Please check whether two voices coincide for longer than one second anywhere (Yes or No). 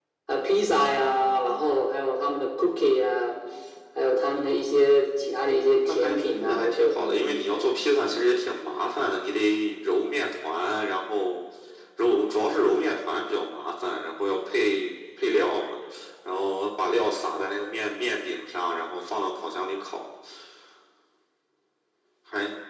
Yes